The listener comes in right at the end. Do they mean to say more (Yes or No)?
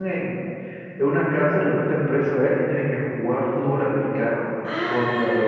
Yes